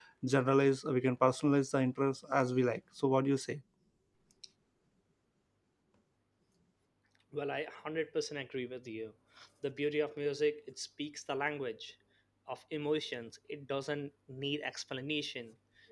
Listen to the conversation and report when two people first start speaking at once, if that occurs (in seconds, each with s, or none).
none